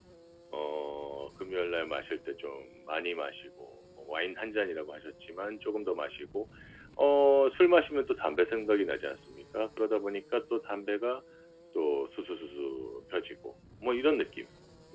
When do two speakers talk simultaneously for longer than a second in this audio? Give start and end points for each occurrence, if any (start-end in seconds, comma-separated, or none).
none